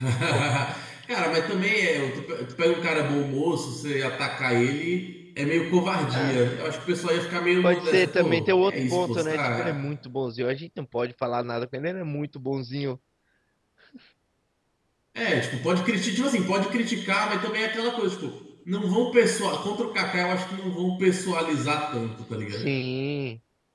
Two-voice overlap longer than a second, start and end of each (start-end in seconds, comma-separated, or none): 7.6-9.8